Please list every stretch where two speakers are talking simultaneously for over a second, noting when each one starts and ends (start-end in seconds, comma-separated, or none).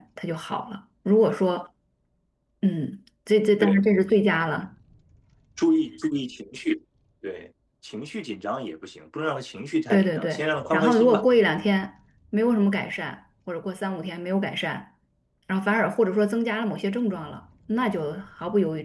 9.9-11.2